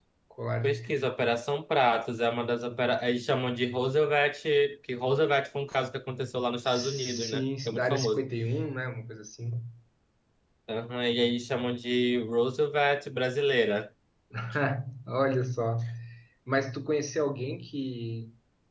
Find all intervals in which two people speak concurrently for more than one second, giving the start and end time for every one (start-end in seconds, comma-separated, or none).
6.7-8.3